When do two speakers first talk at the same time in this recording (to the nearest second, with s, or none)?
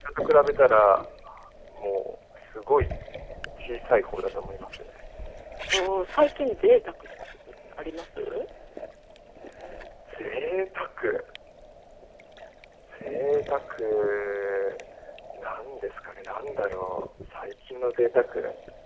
none